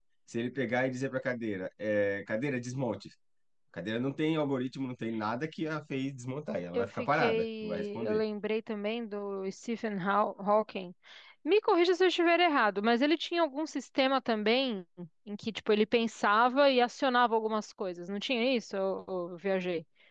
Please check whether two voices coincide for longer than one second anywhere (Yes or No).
Yes